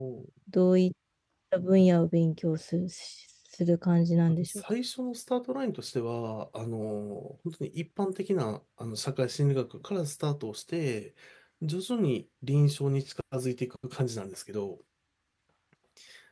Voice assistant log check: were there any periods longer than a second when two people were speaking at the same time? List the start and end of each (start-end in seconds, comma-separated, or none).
none